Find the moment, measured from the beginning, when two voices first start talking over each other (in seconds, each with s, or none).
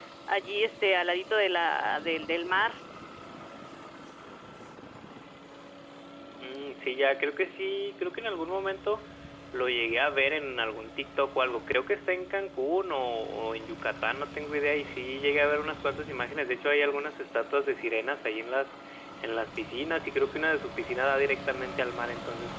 none